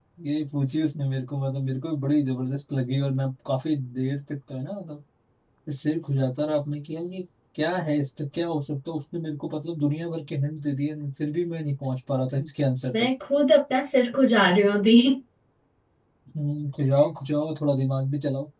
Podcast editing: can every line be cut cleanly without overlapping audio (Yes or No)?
Yes